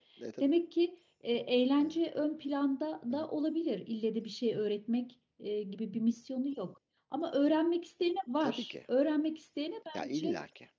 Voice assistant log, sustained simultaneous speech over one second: none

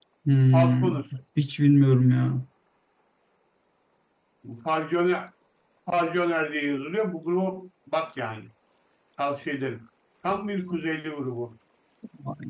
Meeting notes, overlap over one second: none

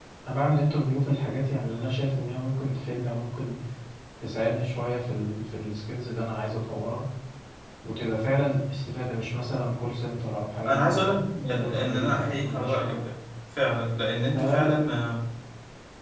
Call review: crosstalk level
present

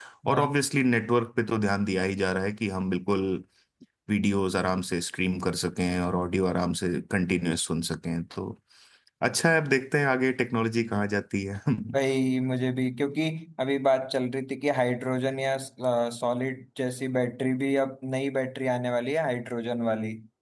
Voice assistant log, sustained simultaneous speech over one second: none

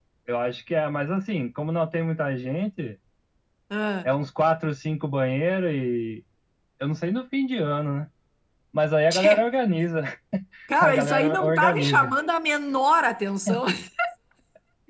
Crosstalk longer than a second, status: present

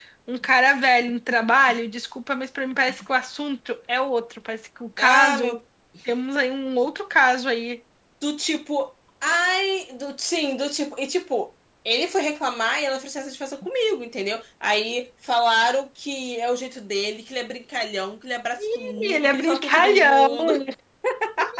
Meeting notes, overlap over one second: present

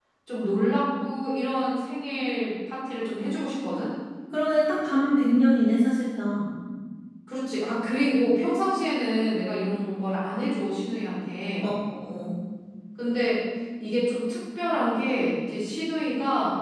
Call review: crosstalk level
none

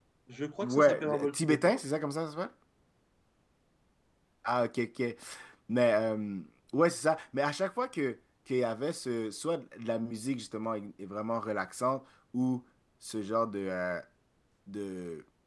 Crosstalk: present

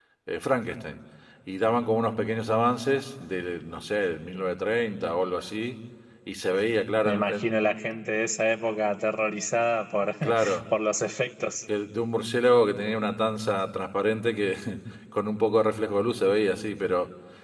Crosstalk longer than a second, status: none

